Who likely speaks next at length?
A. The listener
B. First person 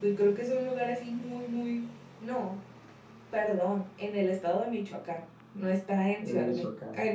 B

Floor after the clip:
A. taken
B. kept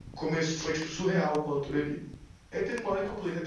B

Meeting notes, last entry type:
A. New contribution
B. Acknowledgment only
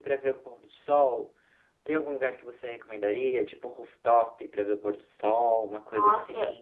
A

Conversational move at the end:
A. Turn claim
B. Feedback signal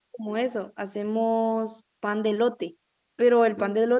B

